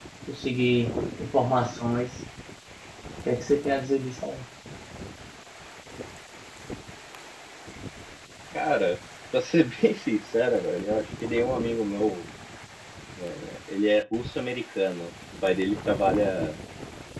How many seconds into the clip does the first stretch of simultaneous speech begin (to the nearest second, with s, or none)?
none